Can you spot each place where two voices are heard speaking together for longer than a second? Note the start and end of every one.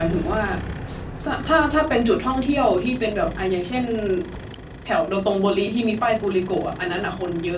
none

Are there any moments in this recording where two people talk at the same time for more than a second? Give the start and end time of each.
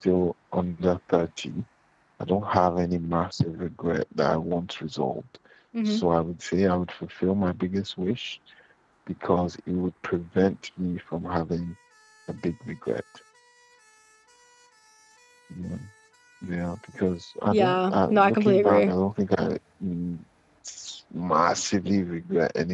17.5-18.9

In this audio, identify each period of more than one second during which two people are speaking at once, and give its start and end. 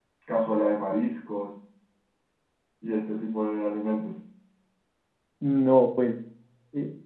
none

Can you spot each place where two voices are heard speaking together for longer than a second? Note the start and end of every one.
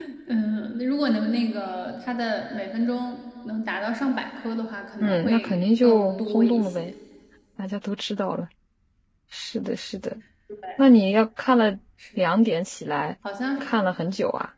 5.0-6.9

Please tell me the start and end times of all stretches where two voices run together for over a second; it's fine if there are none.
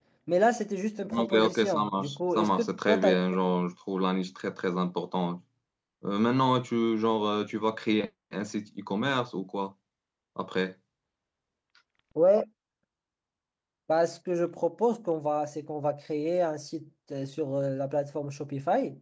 1.1-3.1

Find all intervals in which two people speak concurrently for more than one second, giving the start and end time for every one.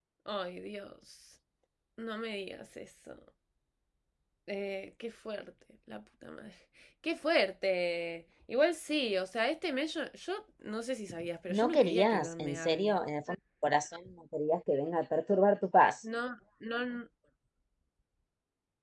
11.5-13.0

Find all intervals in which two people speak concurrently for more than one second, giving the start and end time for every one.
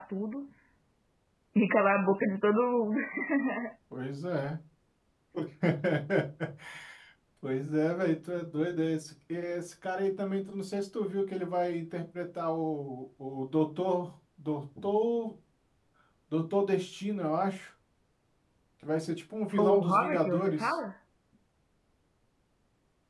19.6-20.8

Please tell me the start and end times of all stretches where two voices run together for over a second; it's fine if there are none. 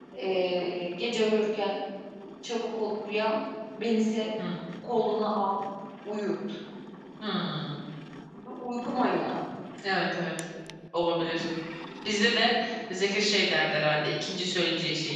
none

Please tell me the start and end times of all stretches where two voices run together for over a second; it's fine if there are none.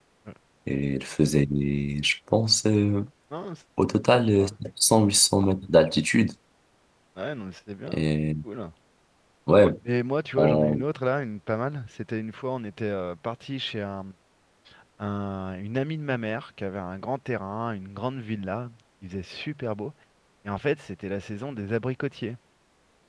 none

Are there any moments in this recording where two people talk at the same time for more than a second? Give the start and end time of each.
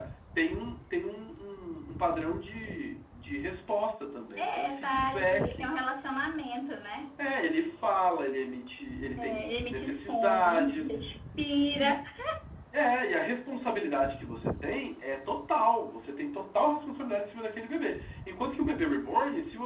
4.4-5.8, 9.2-10.9

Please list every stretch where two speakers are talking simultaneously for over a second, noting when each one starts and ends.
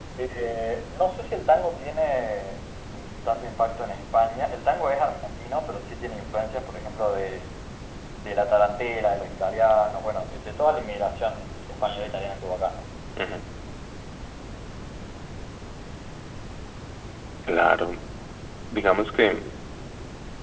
none

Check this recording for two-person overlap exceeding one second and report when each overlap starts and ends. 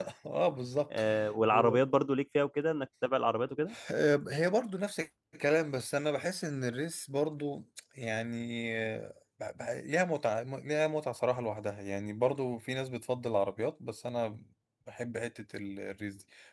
none

